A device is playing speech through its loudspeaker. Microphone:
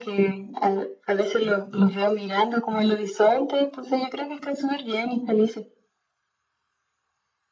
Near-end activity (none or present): none